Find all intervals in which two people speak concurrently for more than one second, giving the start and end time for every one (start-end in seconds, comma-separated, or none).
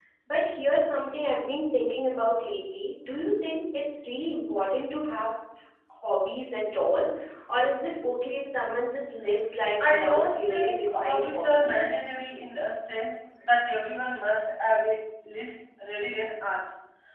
9.8-12.0